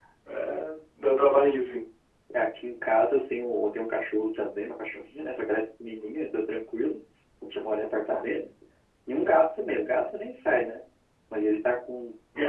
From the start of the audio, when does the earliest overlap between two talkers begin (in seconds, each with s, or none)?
none